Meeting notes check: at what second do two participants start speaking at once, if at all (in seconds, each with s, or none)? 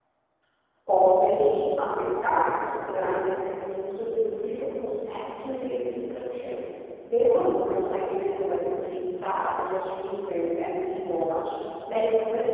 none